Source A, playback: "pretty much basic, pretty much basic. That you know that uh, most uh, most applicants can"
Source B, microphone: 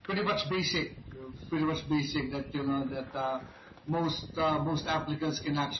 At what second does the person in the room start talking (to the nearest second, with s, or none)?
none